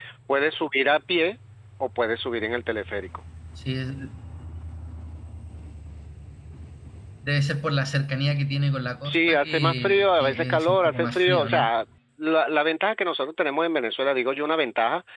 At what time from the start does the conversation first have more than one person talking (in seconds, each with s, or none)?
9.1 s